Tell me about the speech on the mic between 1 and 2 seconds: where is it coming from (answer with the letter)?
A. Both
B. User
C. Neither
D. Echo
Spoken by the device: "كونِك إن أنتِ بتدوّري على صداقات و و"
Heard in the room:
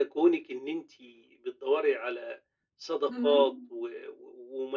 D